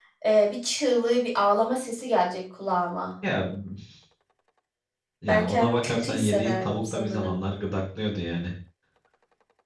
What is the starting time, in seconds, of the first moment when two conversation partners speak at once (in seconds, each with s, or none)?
5.3 s